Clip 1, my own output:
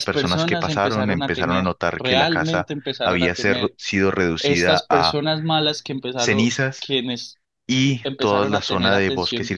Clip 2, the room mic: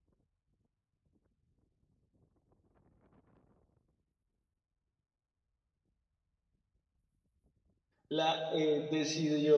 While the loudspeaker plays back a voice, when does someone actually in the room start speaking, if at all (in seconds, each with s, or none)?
8.1 s